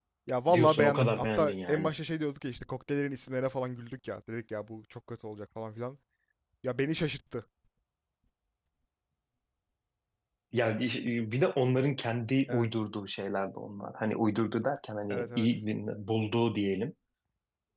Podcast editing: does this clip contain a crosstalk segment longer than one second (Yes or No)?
Yes